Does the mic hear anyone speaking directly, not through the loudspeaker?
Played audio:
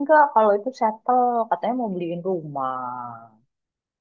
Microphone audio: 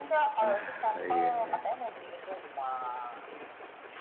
Yes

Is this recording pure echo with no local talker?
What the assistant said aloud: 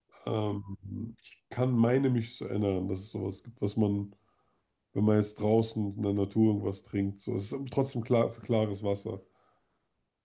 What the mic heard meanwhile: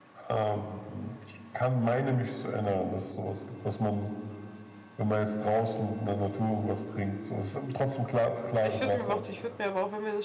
No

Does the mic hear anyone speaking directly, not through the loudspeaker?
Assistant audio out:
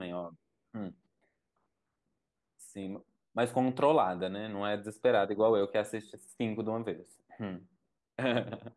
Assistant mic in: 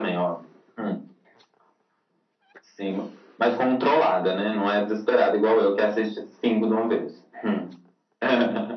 No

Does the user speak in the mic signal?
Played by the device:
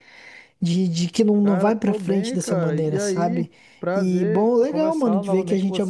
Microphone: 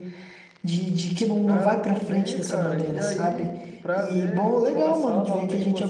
No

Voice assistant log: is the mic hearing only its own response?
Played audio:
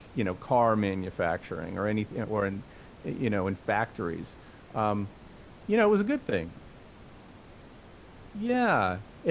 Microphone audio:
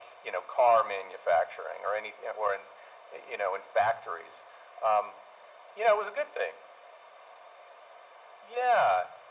Yes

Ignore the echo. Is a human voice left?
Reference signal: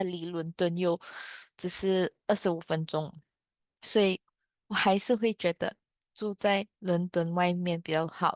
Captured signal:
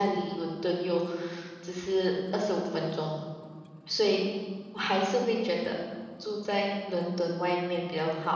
No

